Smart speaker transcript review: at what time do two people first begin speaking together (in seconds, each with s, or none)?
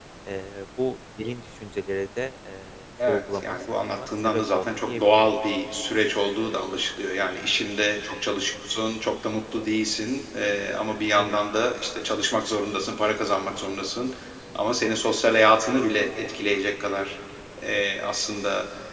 3.0 s